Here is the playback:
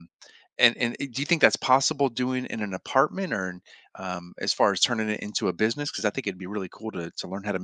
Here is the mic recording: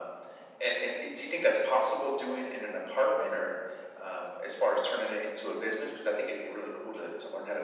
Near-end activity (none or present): none